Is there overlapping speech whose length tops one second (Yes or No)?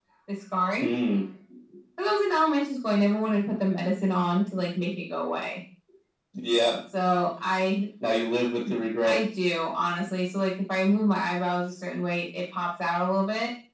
No